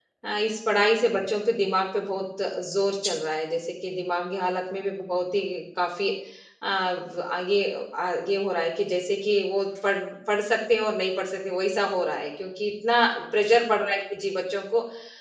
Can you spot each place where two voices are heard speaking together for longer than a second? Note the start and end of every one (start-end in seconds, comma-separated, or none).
none